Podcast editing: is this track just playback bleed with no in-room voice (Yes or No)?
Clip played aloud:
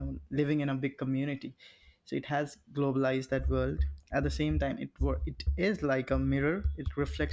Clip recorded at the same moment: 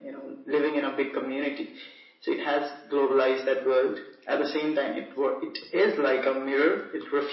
Yes